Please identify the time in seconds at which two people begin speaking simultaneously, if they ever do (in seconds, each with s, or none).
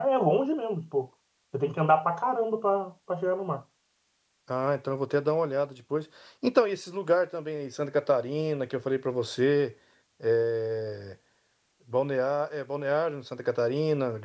none